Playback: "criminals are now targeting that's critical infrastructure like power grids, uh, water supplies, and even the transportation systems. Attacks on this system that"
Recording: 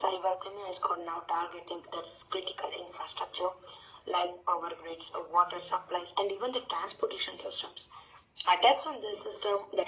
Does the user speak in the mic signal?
No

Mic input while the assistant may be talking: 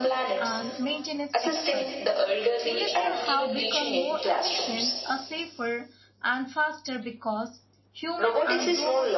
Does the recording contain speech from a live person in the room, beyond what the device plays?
Yes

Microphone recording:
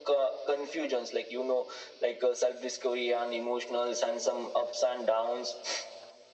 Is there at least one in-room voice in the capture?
No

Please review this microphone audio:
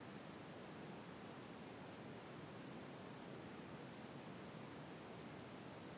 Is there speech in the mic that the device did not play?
No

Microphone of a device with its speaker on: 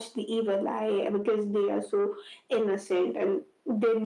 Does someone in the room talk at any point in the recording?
No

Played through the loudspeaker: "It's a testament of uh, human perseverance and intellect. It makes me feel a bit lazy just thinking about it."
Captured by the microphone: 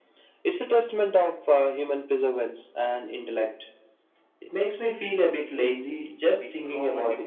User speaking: Yes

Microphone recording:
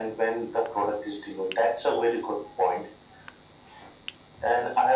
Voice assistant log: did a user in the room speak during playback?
No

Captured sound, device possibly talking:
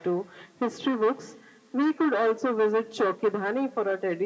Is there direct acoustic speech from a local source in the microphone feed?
No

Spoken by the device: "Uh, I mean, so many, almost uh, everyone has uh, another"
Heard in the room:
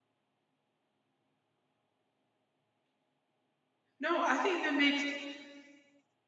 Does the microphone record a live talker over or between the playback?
Yes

